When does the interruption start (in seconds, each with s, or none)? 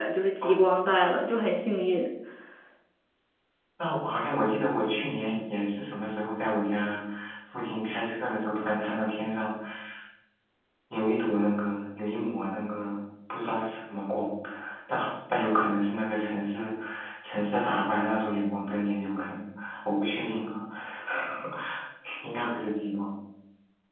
none